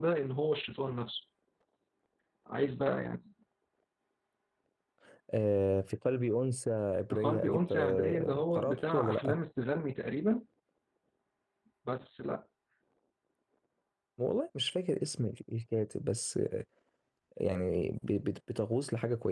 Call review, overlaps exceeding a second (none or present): present